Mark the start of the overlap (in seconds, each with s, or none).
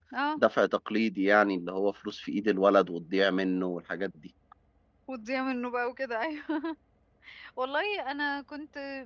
none